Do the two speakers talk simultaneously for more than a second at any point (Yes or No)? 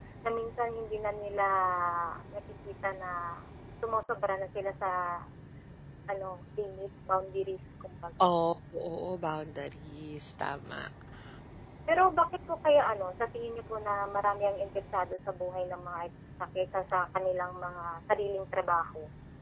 No